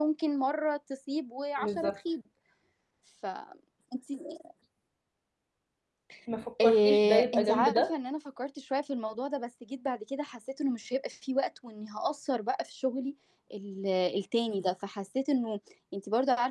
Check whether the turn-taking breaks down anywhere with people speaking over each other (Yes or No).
Yes